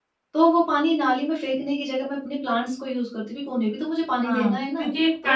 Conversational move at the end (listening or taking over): taking over